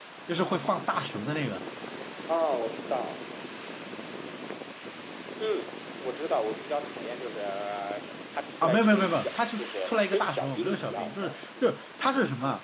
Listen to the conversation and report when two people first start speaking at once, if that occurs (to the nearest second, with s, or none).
9 s